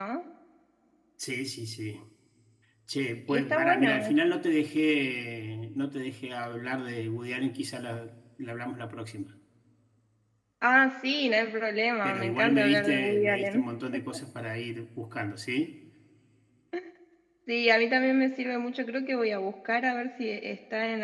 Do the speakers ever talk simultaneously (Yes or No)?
Yes